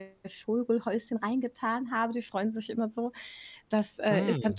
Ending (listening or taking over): listening